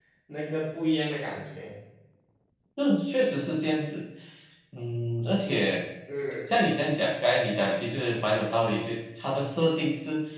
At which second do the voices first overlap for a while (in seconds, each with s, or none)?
none